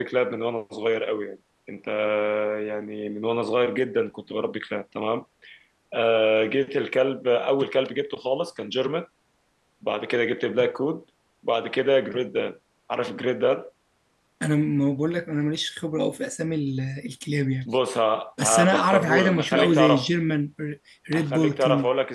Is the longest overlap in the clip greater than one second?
Yes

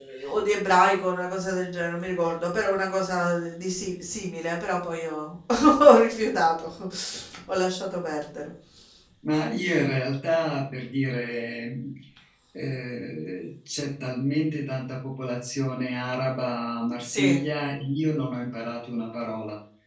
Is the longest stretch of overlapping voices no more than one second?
Yes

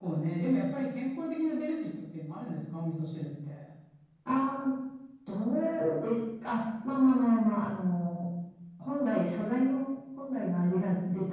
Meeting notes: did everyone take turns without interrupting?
Yes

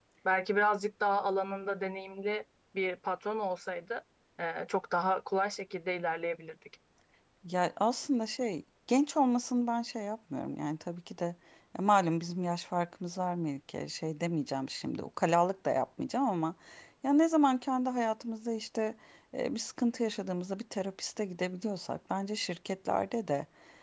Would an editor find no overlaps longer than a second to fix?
Yes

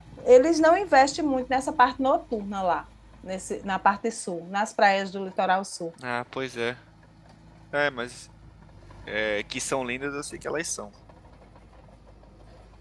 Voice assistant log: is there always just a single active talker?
Yes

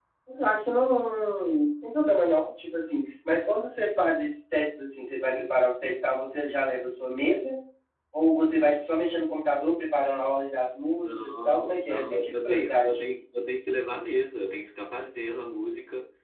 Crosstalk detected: Yes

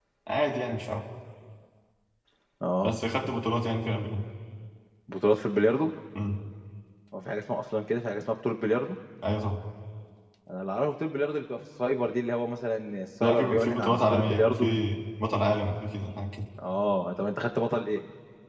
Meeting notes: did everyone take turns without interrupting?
No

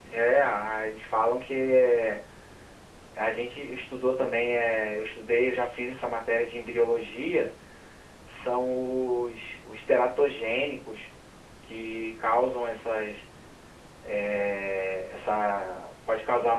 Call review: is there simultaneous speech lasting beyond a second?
No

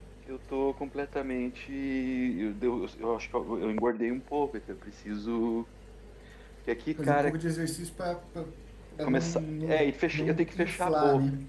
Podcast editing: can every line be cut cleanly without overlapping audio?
No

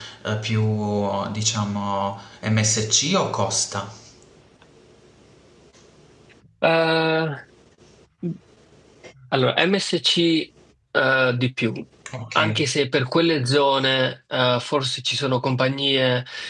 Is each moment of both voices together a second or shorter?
Yes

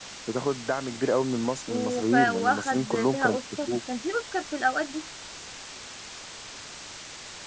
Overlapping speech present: Yes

